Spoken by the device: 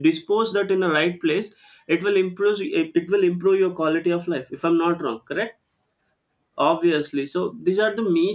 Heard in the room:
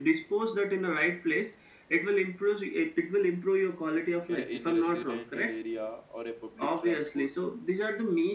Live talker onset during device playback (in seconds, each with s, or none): 4.3 s